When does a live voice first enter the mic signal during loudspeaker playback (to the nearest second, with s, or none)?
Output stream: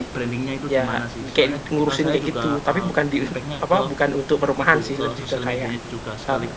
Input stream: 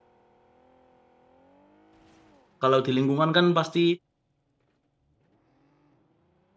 3 s